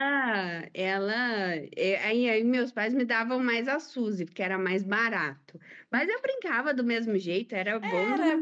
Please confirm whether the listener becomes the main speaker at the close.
Yes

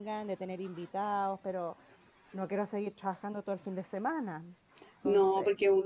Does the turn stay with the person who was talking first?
No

